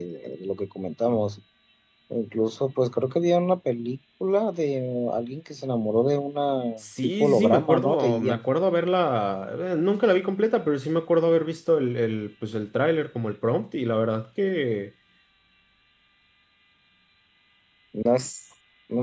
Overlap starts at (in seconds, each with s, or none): 7.0 s